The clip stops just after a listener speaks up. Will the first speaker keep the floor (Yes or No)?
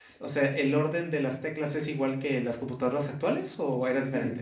No